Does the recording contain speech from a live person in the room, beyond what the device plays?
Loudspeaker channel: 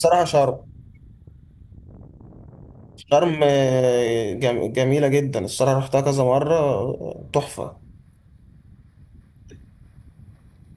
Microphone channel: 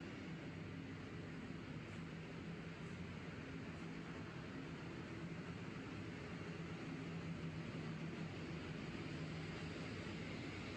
No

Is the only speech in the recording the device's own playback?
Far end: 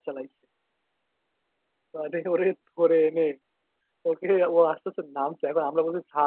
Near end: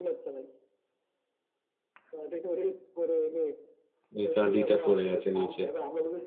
No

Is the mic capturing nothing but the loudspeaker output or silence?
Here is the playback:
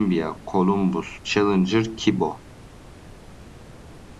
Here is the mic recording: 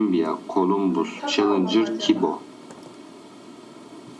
No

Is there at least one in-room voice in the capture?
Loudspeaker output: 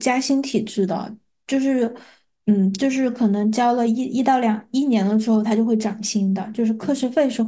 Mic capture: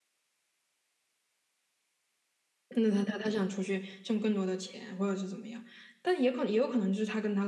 Yes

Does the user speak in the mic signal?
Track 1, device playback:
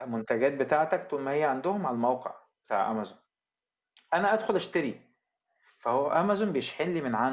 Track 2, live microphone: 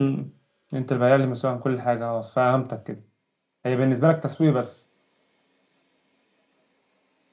Yes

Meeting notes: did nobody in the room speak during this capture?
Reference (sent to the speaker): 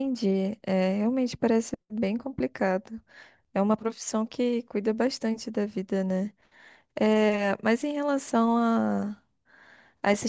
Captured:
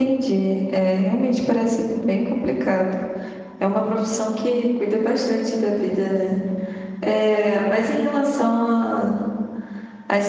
Yes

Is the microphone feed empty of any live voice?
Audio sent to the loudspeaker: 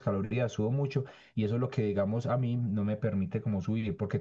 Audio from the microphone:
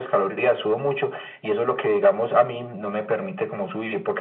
Yes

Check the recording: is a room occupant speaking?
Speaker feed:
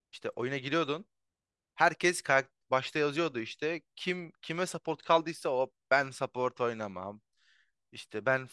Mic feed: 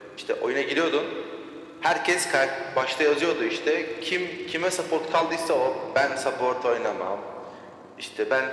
No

